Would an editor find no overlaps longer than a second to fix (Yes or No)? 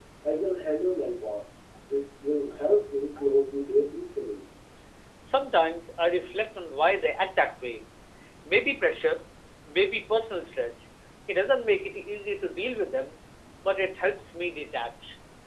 Yes